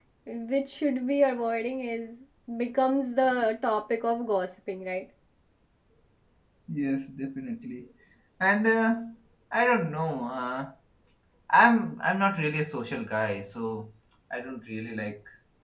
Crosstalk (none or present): none